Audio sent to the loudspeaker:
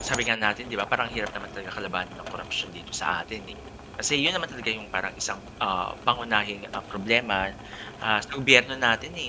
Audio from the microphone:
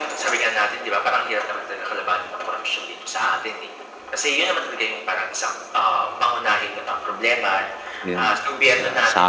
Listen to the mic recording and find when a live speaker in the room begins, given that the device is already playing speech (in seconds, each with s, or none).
8.0 s